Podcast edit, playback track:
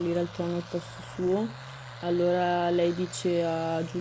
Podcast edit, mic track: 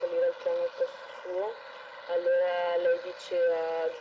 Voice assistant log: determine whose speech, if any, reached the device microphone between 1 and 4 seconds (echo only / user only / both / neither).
echo only